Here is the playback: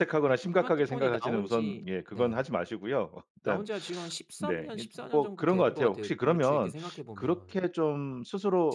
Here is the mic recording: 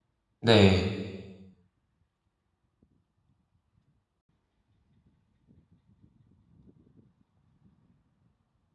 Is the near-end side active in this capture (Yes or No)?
Yes